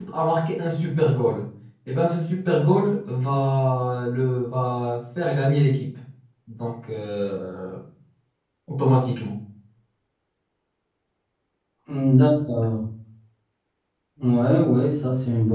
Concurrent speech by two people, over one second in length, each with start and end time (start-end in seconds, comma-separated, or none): none